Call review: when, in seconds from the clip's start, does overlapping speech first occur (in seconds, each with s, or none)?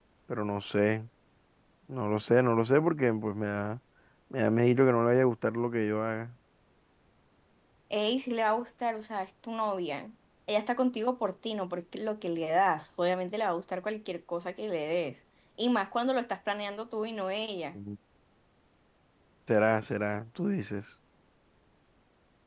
none